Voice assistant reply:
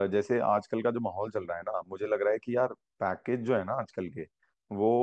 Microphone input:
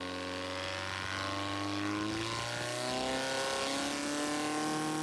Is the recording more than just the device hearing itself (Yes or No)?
No